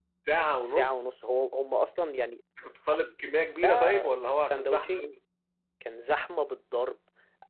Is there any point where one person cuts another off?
Yes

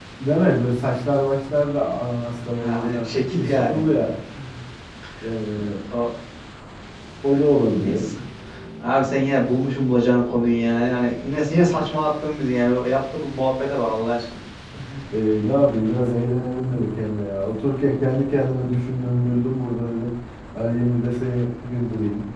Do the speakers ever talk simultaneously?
Yes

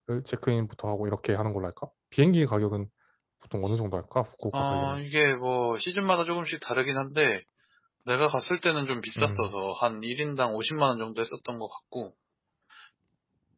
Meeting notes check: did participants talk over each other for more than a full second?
No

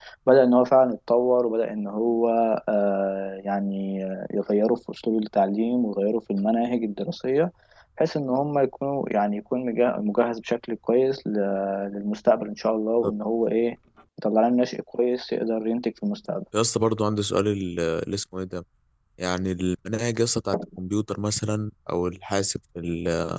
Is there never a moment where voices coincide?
Yes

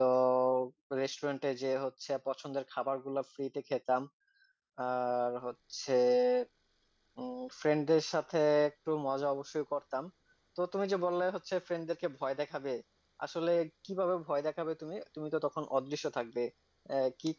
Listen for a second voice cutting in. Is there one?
No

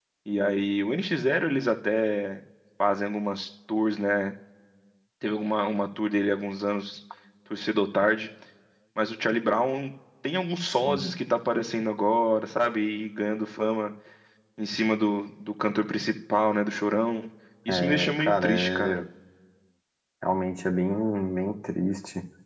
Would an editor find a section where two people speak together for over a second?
Yes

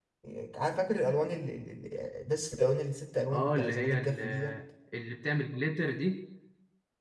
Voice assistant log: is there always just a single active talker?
No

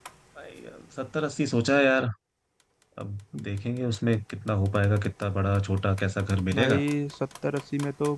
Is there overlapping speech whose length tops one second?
No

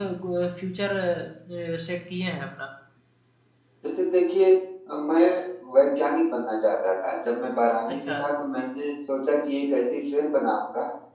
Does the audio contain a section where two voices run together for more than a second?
No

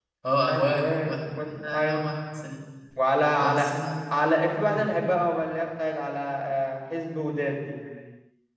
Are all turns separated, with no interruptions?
No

